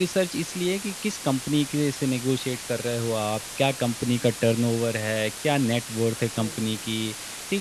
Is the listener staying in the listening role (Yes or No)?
Yes